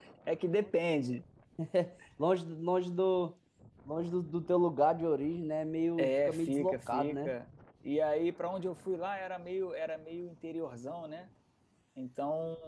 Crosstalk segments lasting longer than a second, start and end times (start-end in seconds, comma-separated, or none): 6.0-7.3